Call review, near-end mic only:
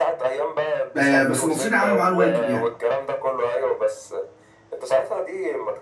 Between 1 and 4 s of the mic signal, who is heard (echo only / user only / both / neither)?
both